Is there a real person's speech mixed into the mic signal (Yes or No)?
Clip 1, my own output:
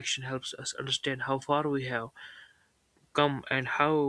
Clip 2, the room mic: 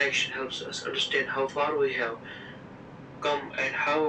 No